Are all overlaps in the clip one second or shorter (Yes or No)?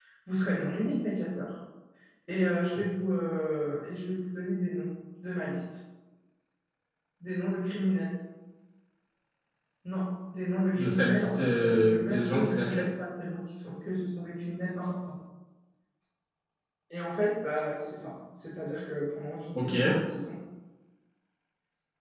No